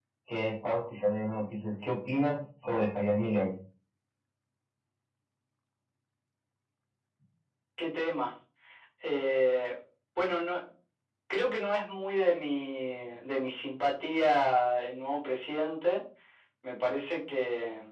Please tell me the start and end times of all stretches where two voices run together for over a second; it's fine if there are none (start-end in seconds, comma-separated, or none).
none